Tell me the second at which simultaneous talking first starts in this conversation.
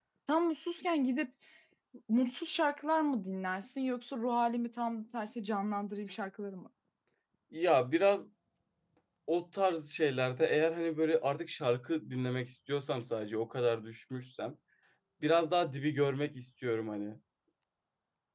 none

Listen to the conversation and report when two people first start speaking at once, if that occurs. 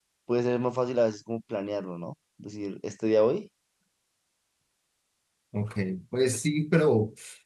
none

